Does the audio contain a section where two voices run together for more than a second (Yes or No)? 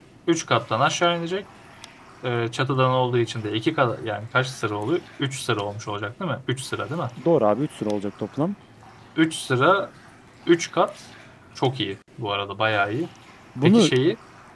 No